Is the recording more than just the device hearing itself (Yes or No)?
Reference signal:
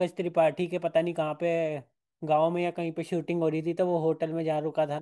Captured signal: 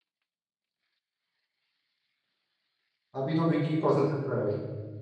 Yes